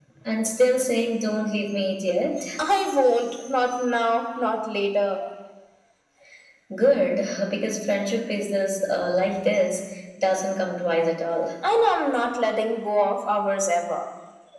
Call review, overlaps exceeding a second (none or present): none